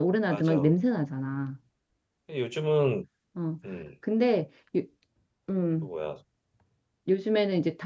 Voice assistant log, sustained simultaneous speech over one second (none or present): none